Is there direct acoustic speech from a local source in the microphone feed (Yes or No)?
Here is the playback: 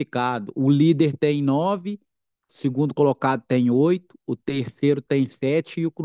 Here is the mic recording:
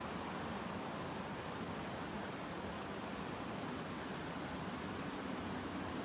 No